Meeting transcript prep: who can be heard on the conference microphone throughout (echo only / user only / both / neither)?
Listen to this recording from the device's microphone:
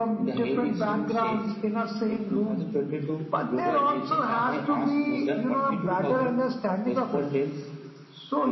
echo only